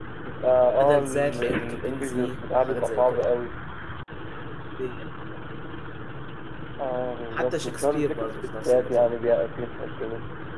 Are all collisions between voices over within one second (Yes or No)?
No